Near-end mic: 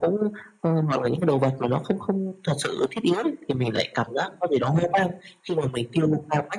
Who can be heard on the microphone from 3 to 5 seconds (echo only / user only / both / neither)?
echo only